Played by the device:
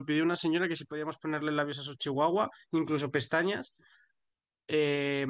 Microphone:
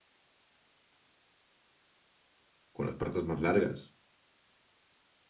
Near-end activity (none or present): present